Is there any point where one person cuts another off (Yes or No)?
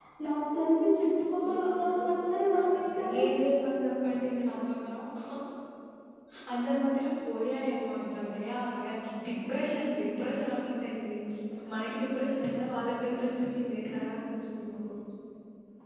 Yes